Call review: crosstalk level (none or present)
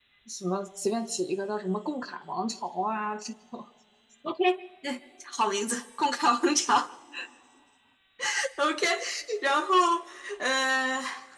none